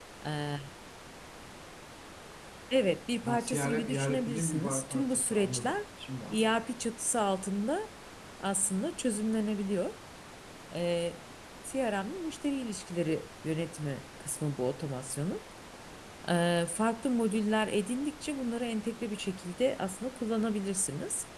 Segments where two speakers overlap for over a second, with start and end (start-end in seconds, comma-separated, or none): 3.2-5.8